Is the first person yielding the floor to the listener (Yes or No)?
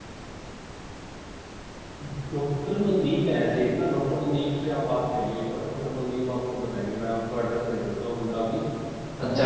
Yes